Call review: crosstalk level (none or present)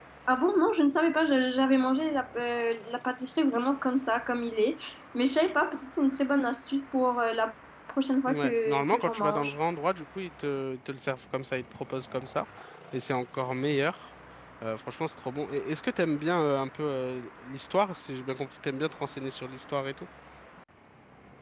present